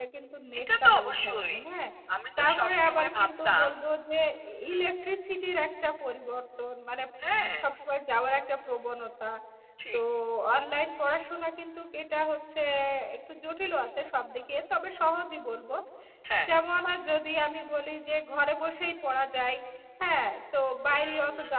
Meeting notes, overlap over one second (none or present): present